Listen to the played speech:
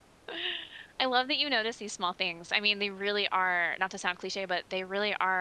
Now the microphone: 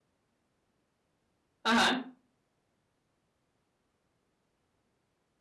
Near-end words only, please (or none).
Uh-huh.